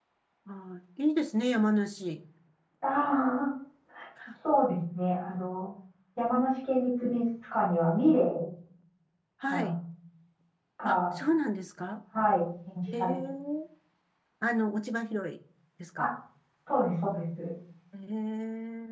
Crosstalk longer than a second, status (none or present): none